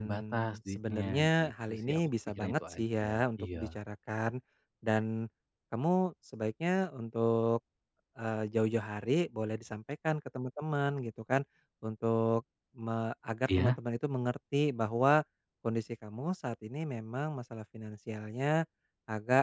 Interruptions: present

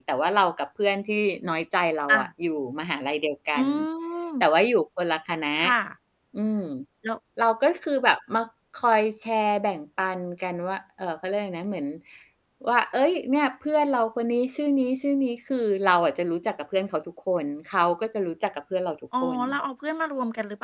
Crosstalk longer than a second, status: none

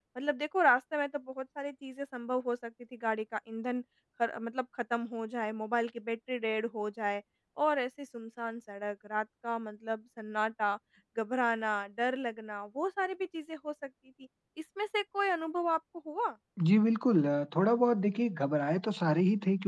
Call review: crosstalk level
none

